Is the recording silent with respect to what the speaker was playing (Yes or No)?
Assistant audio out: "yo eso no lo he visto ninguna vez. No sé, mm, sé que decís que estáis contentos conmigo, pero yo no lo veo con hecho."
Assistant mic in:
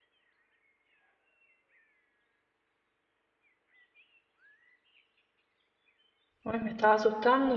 Yes